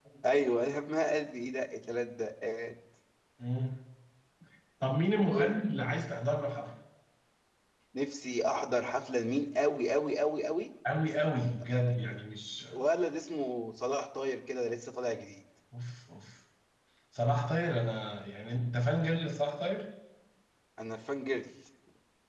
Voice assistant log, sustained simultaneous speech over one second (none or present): none